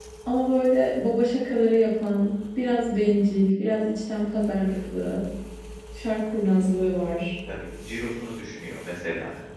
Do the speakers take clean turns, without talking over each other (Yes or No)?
Yes